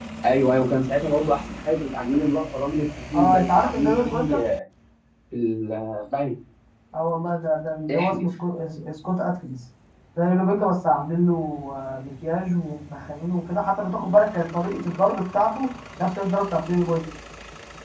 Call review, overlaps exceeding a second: present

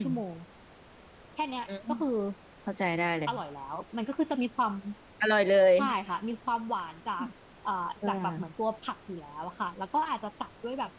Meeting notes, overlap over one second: none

